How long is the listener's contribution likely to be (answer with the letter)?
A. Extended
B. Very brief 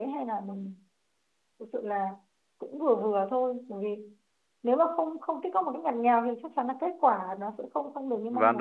A